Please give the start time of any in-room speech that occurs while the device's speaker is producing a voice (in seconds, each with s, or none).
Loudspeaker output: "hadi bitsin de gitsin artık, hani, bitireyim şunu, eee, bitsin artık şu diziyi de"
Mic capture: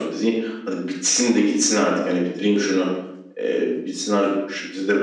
none